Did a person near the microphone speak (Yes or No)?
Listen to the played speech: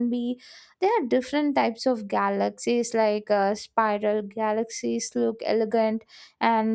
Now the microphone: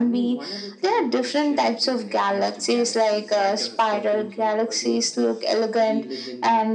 Yes